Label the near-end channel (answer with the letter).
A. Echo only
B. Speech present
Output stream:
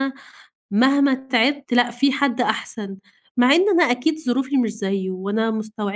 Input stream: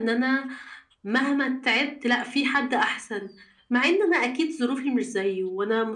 A